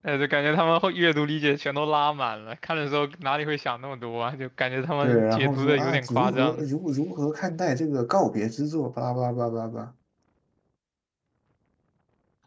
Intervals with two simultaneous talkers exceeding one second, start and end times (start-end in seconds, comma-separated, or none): 5.0-6.6